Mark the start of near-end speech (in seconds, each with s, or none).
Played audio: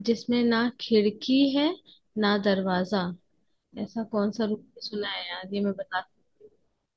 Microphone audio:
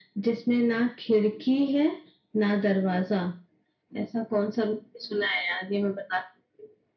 none